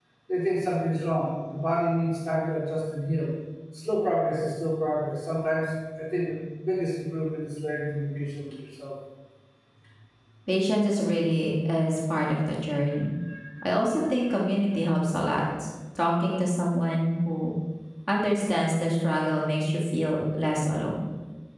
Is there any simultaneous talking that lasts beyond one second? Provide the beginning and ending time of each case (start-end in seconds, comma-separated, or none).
none